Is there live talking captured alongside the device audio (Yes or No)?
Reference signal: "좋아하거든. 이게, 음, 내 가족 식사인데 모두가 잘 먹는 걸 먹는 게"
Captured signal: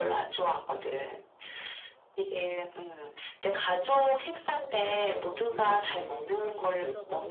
Yes